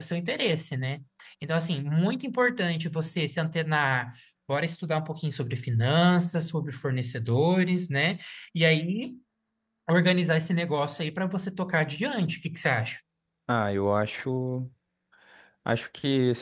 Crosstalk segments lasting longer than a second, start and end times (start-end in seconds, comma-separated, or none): none